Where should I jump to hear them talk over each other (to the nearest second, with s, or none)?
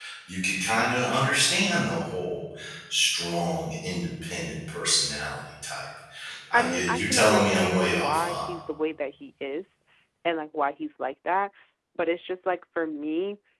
7 s